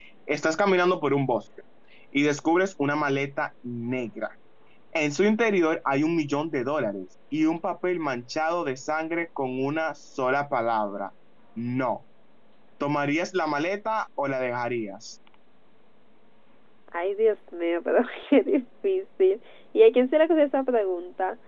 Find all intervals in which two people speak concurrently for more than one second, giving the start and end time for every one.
none

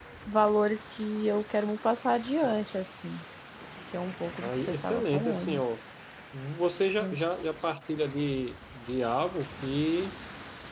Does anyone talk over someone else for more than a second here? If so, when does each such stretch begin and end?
4.4-5.6

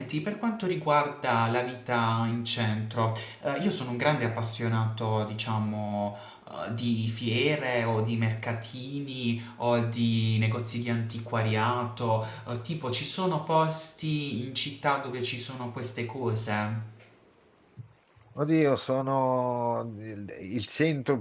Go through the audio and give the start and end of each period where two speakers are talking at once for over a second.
none

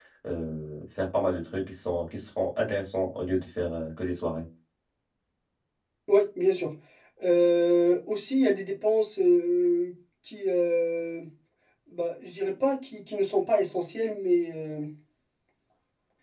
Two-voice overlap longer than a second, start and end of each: none

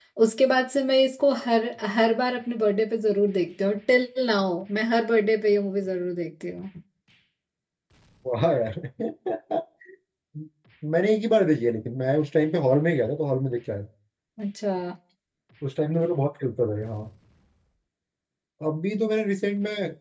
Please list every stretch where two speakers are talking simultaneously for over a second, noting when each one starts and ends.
none

